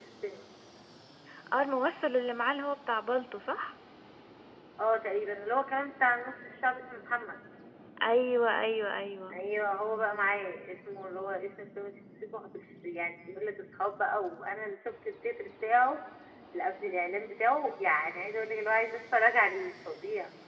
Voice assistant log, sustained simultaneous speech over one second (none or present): none